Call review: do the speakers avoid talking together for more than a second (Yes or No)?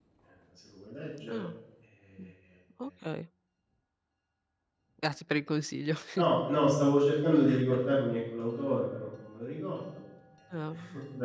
Yes